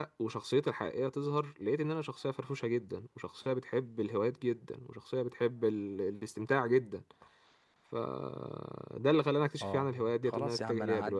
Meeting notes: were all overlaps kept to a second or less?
No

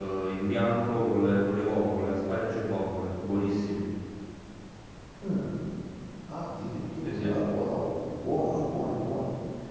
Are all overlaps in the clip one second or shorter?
Yes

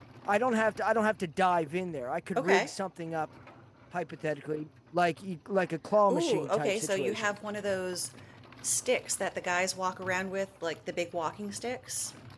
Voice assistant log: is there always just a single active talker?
No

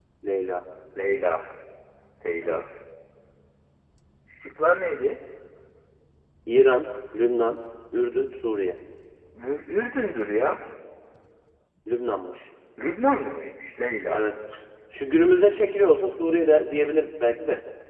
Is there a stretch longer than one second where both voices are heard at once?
No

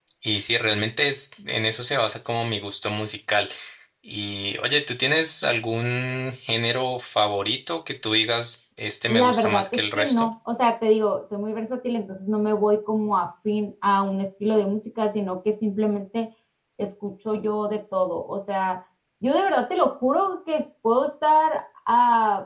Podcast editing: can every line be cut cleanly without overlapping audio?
No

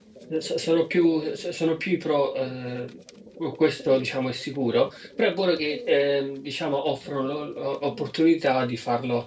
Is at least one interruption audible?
No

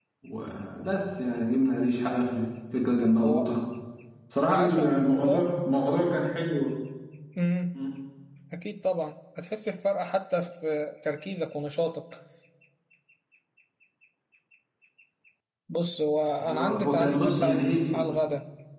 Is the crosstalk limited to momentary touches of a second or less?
No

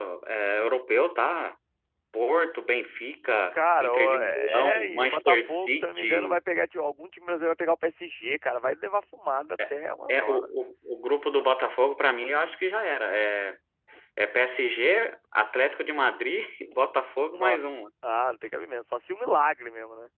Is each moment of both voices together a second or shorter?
No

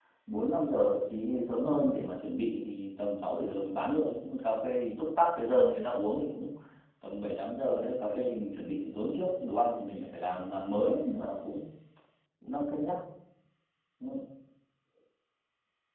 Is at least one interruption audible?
No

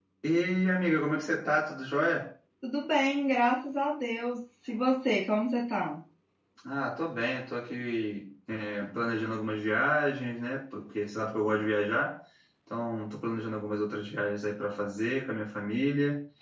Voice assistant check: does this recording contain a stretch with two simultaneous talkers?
No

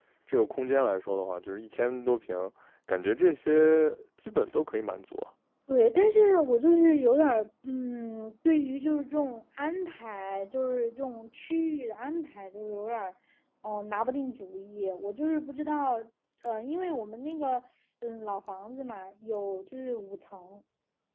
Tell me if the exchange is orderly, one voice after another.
Yes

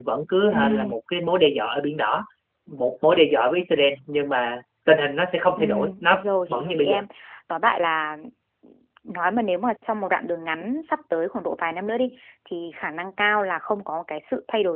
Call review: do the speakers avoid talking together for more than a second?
No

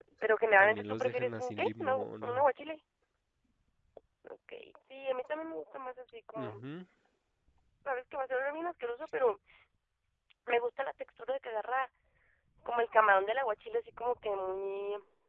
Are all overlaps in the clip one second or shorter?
No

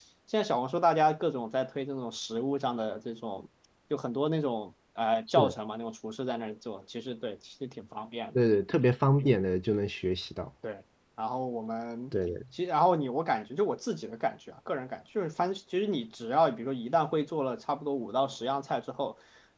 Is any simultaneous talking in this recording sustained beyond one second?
No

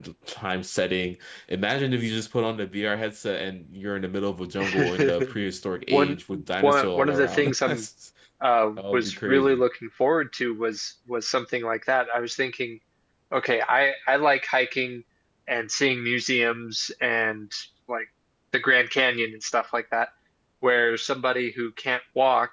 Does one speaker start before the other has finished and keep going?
Yes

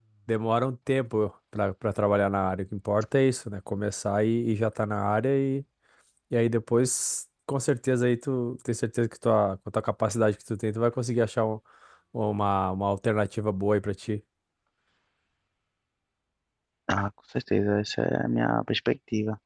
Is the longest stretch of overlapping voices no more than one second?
Yes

